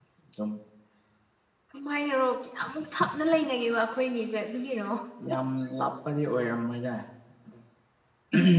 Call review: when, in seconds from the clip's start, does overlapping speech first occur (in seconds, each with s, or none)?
none